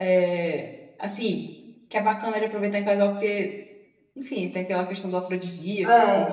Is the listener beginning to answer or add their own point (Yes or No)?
Yes